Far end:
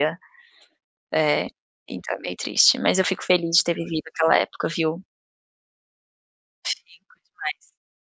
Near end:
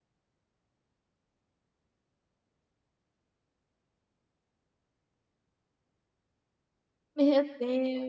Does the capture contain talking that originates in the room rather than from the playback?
Yes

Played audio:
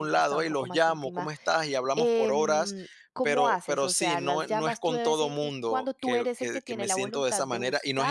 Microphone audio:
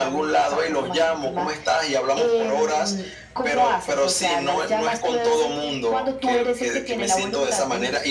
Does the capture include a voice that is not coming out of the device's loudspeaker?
No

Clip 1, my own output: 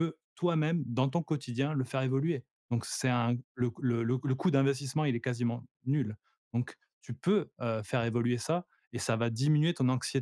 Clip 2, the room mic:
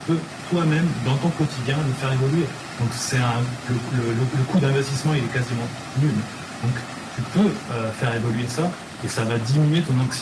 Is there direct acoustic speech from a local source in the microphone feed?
No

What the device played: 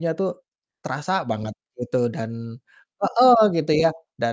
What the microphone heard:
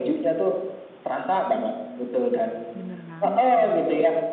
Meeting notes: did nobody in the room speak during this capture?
No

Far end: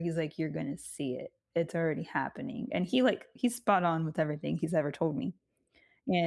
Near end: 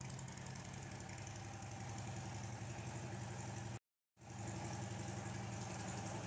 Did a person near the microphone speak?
No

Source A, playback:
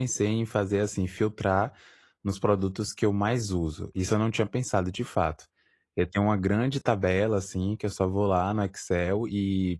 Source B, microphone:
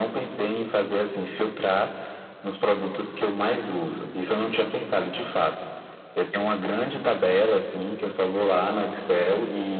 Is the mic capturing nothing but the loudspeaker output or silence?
Yes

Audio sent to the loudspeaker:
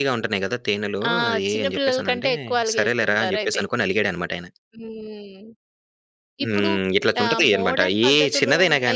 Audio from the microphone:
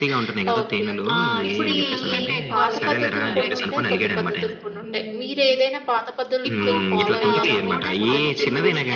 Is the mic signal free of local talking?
No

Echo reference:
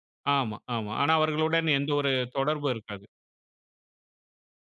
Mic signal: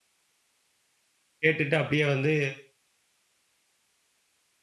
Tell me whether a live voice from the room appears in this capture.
Yes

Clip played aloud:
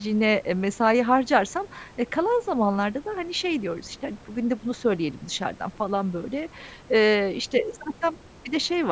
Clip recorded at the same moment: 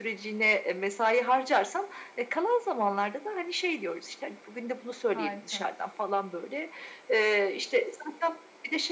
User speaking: Yes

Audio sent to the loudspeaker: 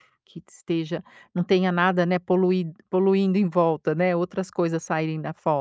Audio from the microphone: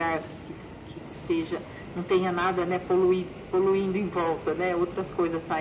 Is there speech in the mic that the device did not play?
No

